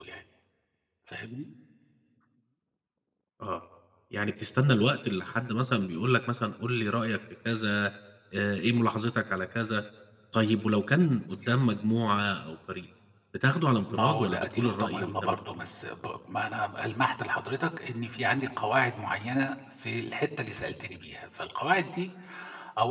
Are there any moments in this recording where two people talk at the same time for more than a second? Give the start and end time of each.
13.9-15.3

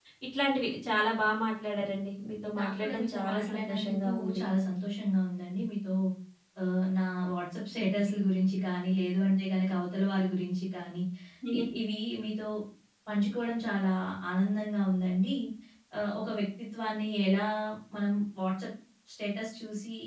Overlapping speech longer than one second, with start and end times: 2.6-4.4

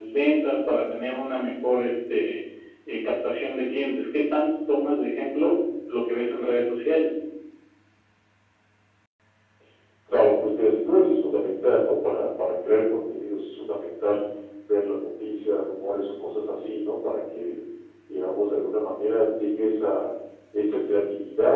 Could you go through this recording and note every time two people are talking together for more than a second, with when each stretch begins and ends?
none

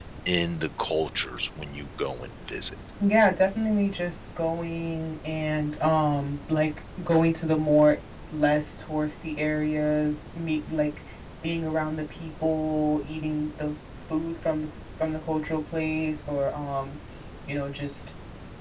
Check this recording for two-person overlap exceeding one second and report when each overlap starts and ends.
none

